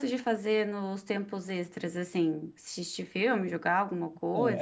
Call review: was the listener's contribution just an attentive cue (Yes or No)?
No